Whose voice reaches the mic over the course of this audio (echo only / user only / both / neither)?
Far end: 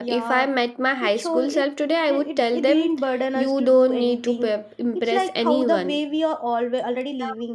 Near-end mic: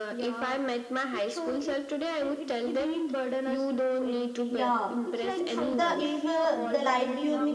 both